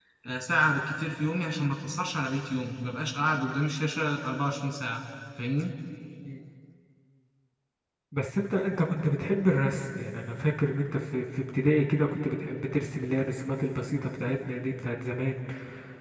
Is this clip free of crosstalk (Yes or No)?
Yes